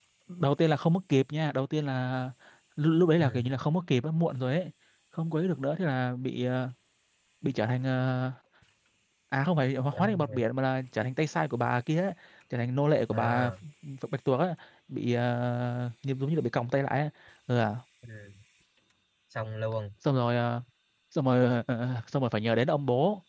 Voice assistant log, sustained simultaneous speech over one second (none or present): none